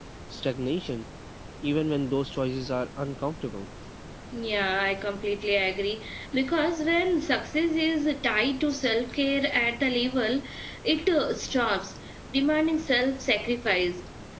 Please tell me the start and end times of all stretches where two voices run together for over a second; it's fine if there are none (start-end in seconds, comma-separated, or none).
none